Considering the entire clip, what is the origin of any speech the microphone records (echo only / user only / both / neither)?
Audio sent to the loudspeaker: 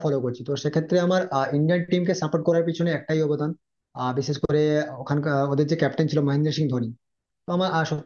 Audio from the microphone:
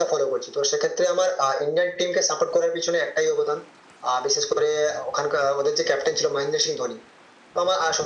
echo only